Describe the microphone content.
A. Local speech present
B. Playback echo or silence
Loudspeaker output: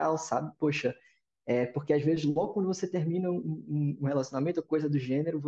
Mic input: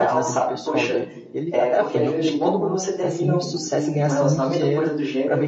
A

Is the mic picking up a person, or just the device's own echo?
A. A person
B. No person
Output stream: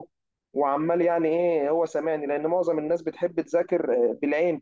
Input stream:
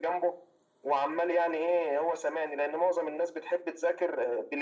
B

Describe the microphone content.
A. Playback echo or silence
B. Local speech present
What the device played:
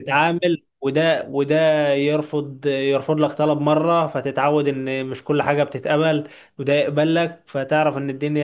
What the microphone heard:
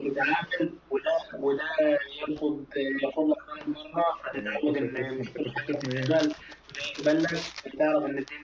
B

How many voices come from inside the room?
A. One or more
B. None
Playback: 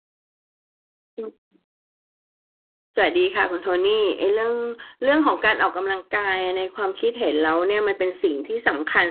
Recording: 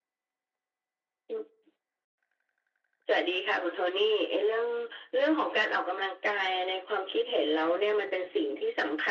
B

